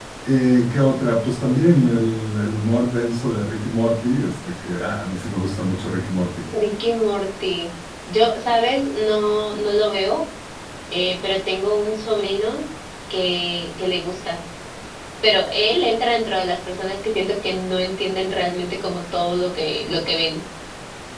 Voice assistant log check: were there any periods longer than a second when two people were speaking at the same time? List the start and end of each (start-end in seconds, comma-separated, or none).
none